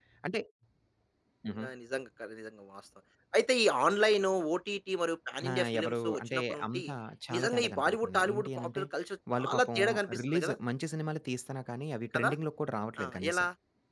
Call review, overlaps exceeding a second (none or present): present